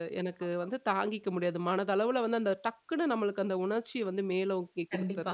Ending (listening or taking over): taking over